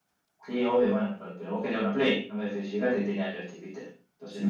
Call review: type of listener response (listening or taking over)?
taking over